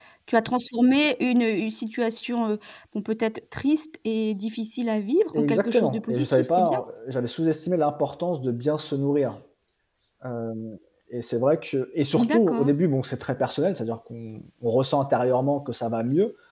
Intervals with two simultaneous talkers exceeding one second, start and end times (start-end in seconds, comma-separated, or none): 5.3-6.8